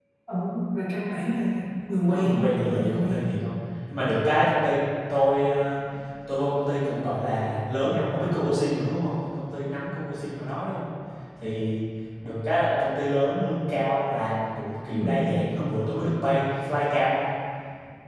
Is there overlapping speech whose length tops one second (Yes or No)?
Yes